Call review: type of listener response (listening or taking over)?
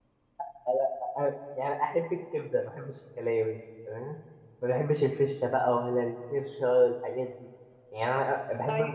listening